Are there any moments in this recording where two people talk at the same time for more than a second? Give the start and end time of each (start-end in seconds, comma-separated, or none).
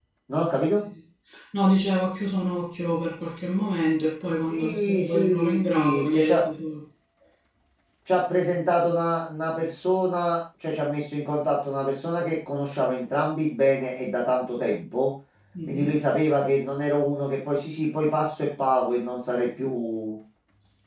4.5-6.4